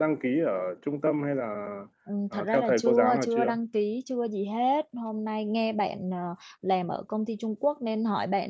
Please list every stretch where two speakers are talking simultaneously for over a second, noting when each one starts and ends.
2.3-3.6

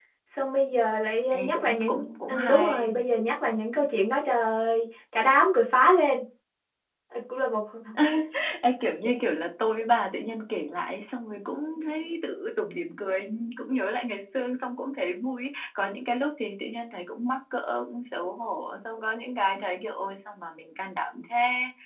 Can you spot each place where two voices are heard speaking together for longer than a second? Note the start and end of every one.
1.3-3.0

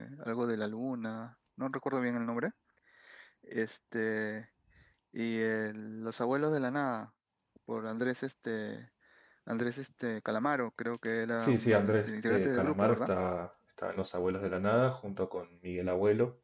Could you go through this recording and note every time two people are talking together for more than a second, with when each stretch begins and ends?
11.4-13.1

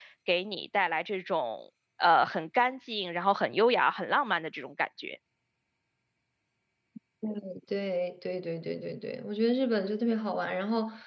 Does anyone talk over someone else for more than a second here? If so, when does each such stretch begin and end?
none

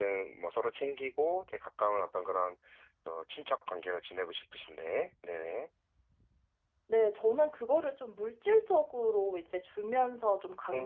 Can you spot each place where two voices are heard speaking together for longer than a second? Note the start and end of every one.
none

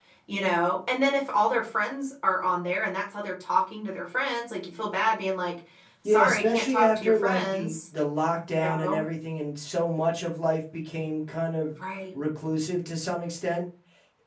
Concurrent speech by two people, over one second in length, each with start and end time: 6.0-7.8

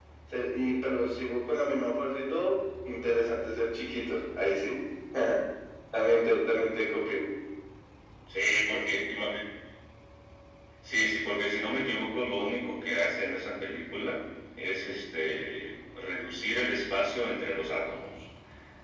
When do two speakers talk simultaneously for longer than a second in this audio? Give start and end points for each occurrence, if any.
none

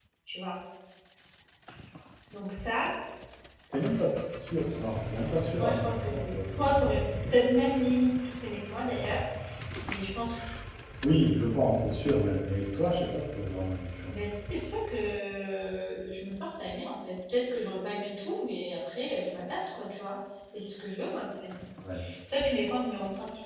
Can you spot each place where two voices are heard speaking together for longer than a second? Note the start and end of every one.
5.6-6.8

